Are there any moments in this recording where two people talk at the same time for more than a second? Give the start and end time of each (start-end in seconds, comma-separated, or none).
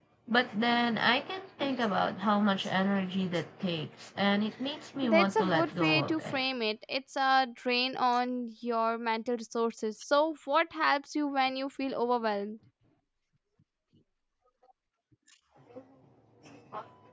5.0-6.4